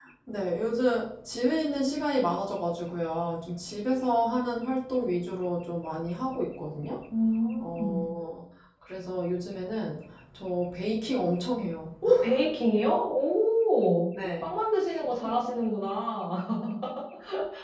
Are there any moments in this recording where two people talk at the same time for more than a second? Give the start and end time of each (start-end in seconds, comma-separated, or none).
none